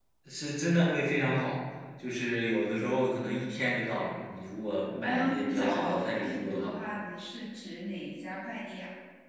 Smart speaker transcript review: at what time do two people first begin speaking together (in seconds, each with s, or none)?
5.0 s